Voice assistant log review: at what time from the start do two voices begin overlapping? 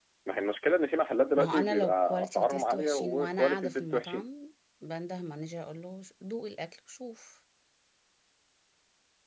1.4 s

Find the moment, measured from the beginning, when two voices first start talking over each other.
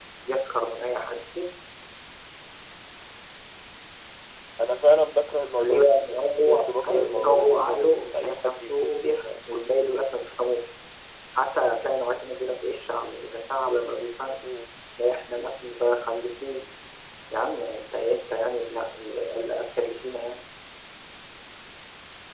5.6 s

